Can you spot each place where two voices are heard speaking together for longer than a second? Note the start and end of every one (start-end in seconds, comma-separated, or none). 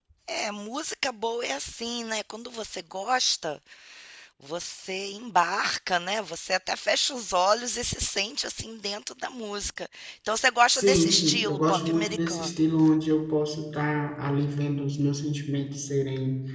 10.7-12.5